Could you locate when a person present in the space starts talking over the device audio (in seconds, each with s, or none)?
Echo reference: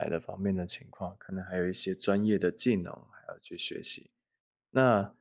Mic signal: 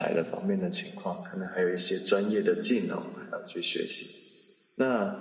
none